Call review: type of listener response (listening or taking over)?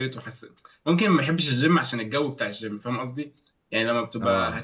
listening